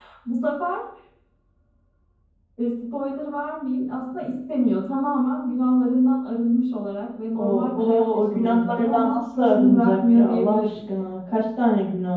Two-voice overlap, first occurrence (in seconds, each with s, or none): 7.3 s